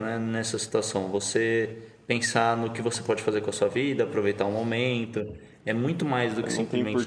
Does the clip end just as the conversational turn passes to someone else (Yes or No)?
Yes